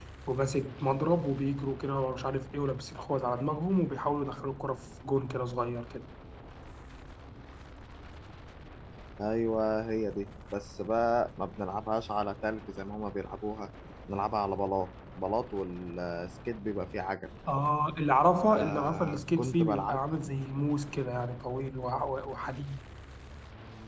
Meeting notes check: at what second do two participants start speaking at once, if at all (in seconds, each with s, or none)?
18.5 s